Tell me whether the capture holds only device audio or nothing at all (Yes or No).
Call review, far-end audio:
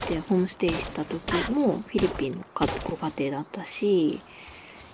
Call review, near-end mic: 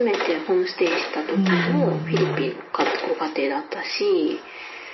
No